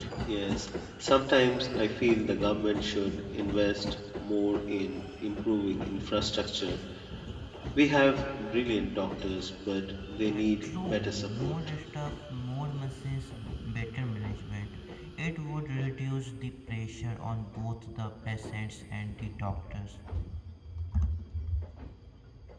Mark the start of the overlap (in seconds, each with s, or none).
10.2 s